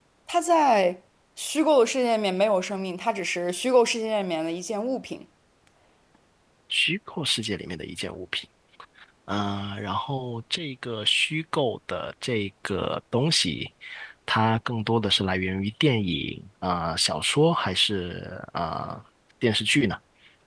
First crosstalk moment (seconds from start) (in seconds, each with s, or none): none